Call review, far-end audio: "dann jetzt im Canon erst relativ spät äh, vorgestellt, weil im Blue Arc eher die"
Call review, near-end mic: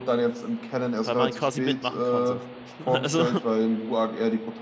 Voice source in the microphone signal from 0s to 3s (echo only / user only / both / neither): both